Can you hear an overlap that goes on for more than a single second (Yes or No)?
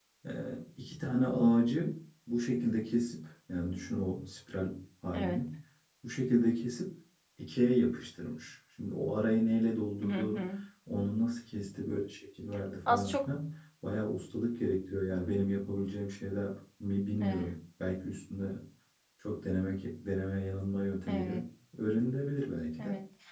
No